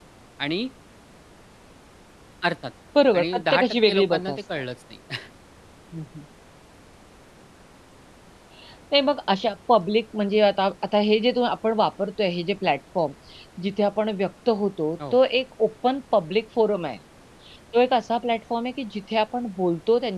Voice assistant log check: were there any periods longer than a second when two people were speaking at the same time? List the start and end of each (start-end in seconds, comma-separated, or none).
3.2-4.6